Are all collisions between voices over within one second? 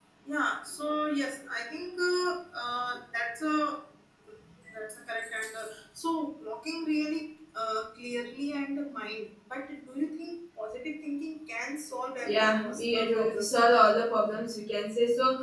No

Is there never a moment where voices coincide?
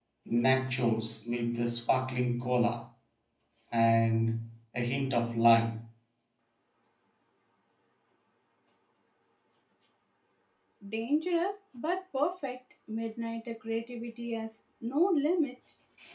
Yes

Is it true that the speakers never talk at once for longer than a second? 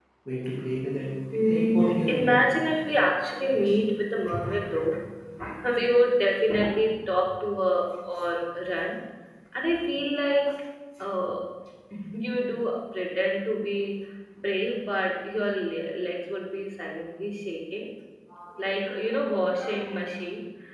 No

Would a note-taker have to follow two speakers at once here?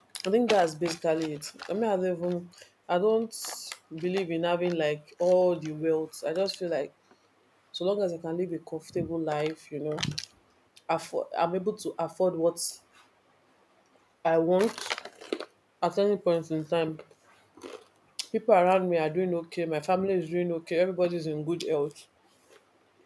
No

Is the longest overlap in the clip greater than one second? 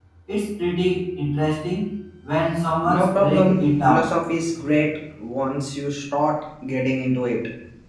Yes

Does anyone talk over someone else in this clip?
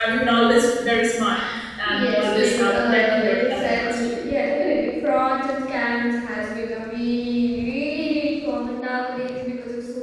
Yes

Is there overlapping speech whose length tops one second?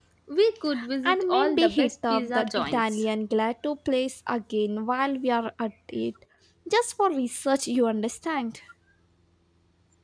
Yes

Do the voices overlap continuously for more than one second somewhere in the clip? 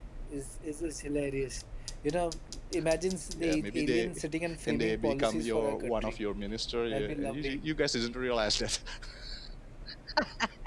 Yes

